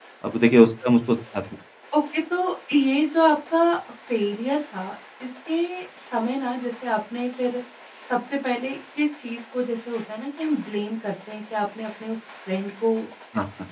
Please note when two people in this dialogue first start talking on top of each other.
none

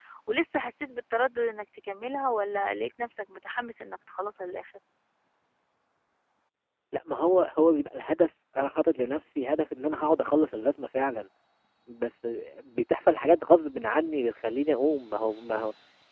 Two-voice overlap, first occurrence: none

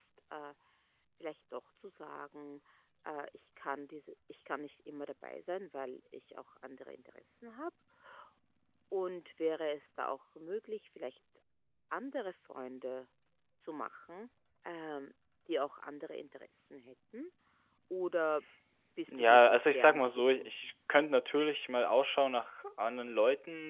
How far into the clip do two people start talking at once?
19.1 s

